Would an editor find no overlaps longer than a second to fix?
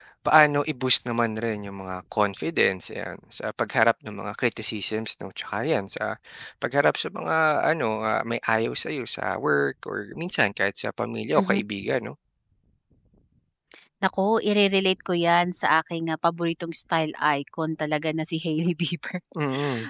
Yes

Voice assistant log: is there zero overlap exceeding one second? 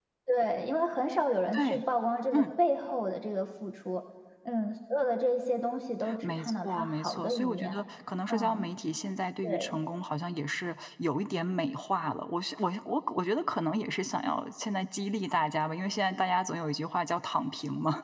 No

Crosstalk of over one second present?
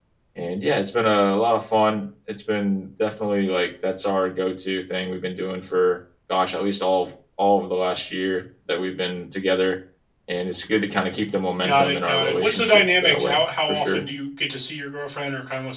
Yes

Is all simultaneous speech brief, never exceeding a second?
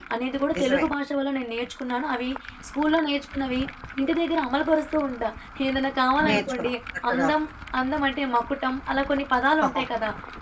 Yes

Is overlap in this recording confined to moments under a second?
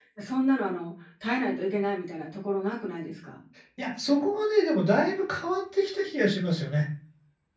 Yes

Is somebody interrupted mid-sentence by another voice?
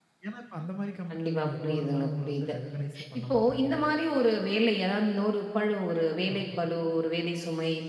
Yes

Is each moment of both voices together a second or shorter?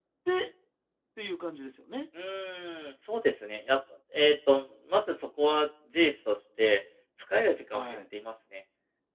Yes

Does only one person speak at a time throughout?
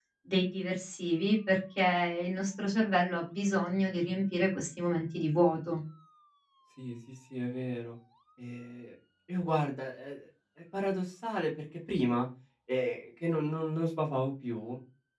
Yes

